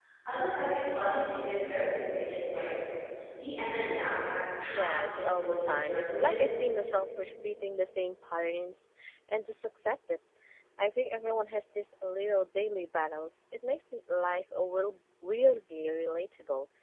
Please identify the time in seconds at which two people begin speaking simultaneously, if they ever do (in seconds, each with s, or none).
4.6 s